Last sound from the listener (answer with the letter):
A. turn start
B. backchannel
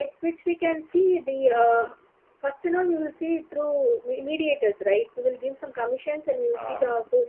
B